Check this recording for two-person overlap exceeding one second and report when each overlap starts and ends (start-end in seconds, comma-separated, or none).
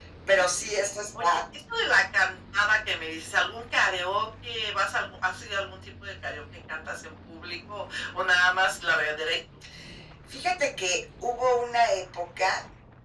none